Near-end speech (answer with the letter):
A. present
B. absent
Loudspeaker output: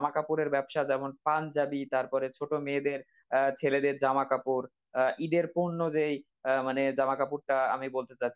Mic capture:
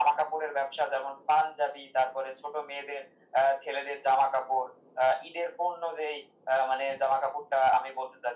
B